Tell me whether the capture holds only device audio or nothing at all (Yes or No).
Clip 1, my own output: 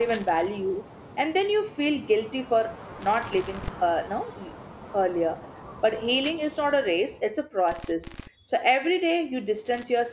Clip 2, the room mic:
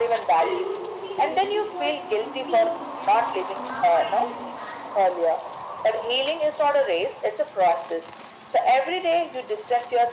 No